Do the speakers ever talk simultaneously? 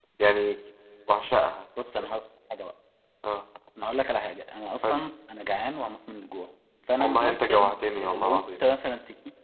Yes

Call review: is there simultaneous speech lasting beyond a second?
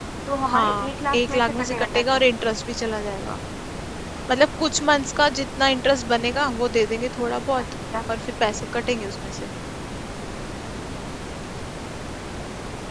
Yes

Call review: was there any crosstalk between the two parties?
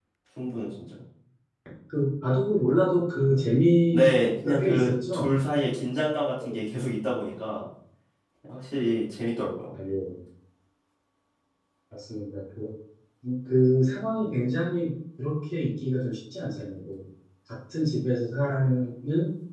Yes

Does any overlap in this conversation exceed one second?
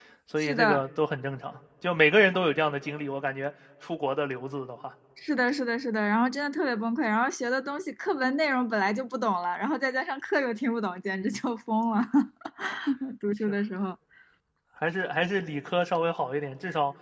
No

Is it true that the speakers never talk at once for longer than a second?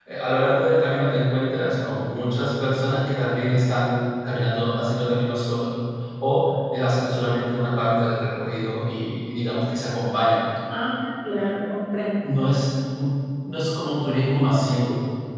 Yes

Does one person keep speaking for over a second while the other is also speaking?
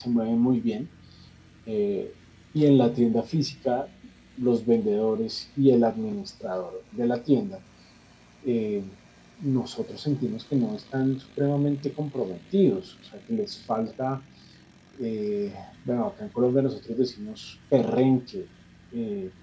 No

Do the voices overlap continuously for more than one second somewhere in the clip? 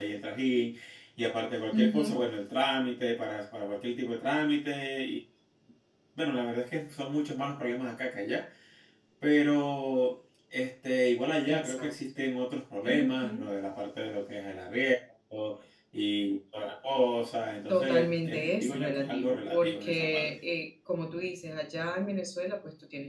Yes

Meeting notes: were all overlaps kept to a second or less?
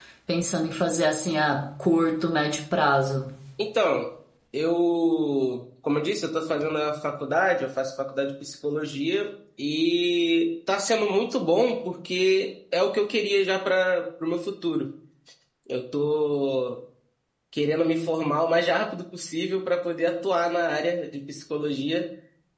Yes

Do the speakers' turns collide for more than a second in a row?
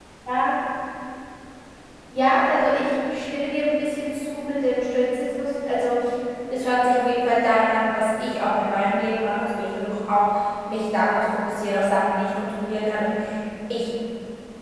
No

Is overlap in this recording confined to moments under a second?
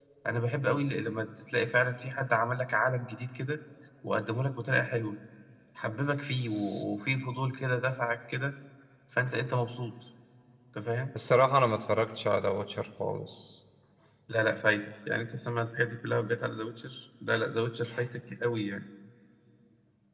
Yes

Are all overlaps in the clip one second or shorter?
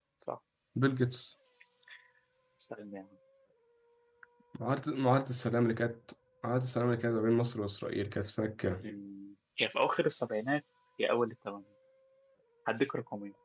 Yes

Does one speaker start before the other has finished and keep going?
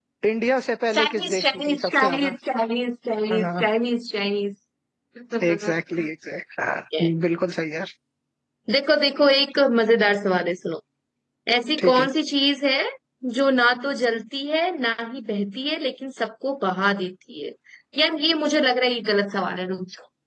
Yes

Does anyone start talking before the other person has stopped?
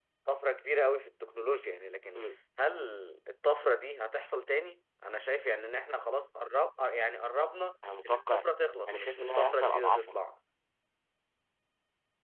Yes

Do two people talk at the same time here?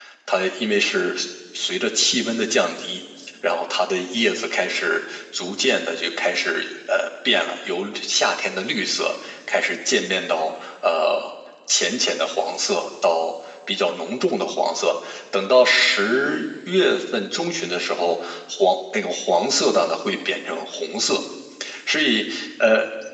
No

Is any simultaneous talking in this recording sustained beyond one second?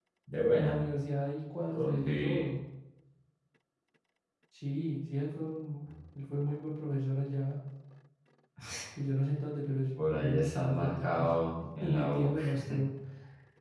Yes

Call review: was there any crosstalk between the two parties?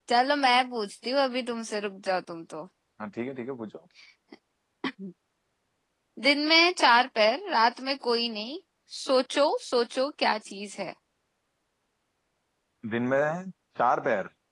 No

